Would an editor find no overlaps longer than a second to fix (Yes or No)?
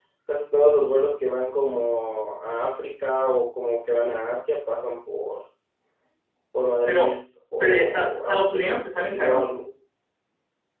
No